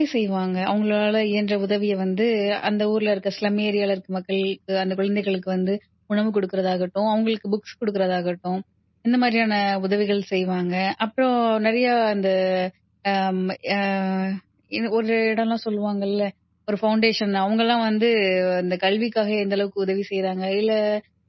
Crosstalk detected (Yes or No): No